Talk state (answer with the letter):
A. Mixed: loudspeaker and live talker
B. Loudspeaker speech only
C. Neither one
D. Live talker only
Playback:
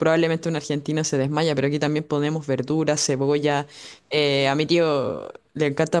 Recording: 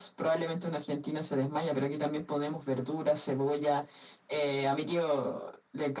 B